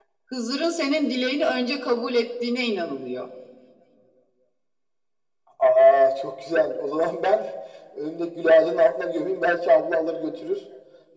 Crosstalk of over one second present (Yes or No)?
No